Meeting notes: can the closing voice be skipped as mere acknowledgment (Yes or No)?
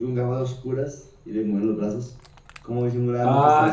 No